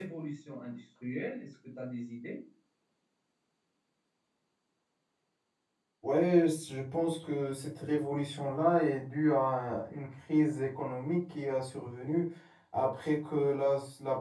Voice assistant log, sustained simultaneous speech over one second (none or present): none